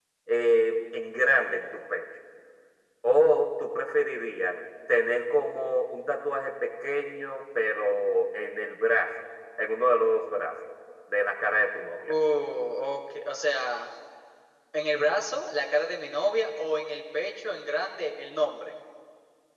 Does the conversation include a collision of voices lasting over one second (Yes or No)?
No